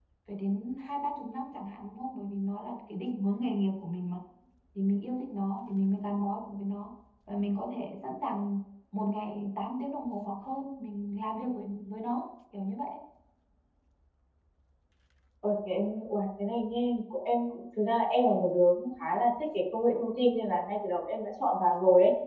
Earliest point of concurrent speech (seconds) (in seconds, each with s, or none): none